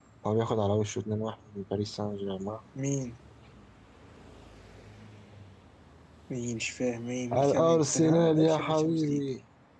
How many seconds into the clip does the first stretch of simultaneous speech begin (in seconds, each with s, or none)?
7.3 s